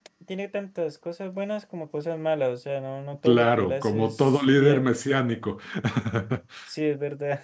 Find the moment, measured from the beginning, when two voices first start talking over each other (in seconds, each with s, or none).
3.2 s